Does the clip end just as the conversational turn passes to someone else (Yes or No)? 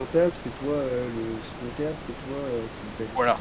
Yes